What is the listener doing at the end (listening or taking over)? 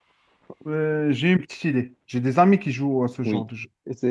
taking over